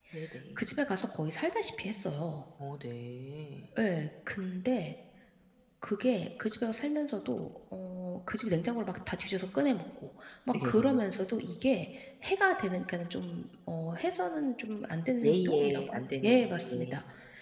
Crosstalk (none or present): present